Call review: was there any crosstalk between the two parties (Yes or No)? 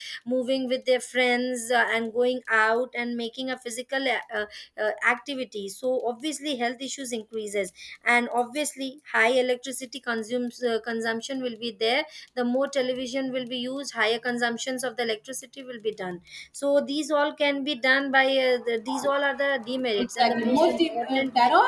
Yes